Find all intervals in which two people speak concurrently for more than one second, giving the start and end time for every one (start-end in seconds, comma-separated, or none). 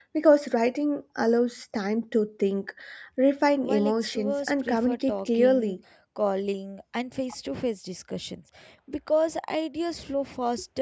3.6-5.8